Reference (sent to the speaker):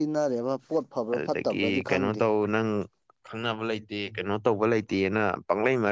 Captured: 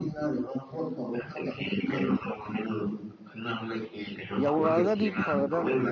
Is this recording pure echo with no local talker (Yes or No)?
No